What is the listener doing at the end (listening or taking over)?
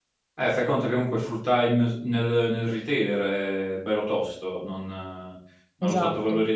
listening